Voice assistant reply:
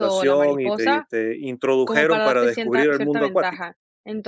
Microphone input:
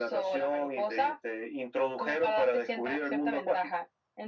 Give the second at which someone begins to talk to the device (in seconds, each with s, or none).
none